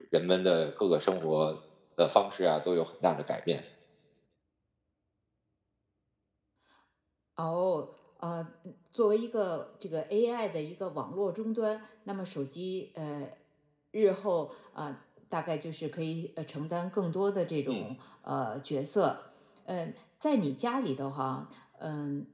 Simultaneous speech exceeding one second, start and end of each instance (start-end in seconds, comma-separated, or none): none